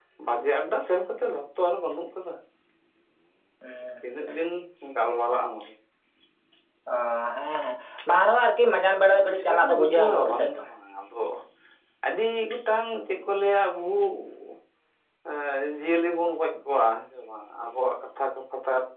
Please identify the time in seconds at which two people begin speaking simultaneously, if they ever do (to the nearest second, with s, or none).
9 s